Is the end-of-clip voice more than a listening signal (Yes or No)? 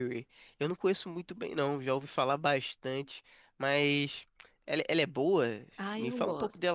Yes